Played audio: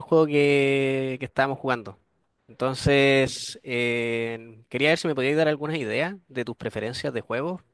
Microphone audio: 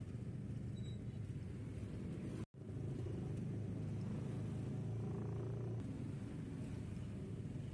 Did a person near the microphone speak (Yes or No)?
No